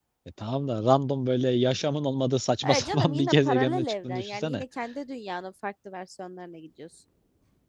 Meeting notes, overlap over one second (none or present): present